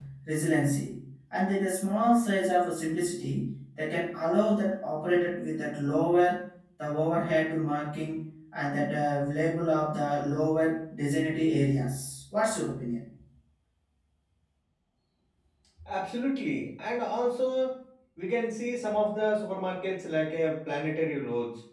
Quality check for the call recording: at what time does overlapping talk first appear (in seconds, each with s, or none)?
none